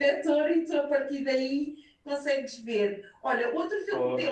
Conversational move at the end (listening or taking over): listening